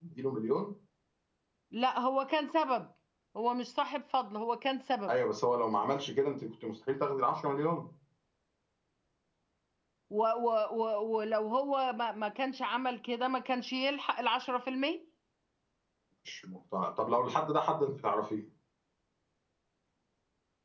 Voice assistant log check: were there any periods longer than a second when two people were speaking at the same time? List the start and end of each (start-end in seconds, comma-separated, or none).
none